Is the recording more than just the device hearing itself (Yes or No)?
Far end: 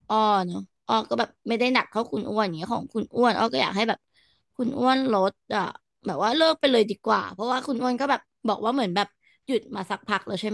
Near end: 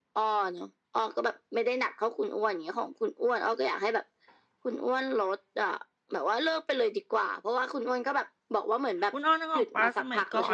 Yes